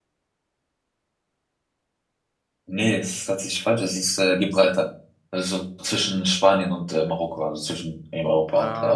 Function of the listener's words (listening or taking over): taking over